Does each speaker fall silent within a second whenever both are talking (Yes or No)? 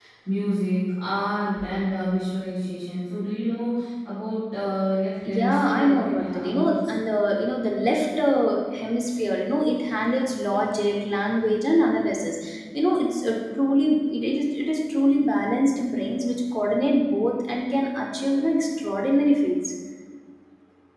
No